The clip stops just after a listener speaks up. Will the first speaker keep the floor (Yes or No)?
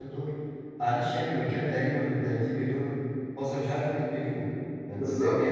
Yes